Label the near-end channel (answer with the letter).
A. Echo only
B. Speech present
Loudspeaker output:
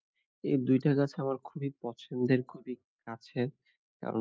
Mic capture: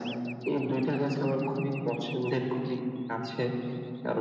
A